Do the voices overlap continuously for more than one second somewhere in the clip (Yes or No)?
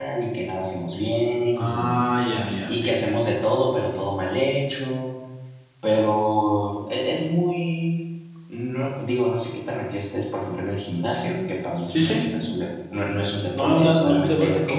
Yes